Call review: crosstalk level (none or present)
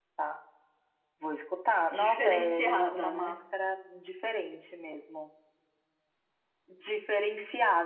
present